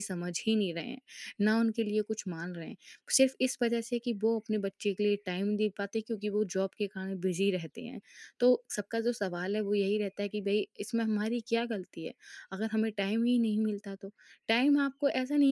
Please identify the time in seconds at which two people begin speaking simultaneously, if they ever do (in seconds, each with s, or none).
none